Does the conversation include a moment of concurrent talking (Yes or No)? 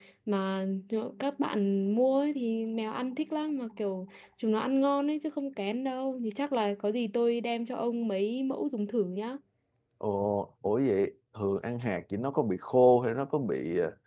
No